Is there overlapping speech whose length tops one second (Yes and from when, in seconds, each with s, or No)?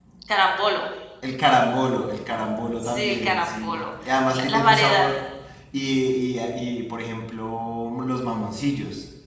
Yes, from 2.8 s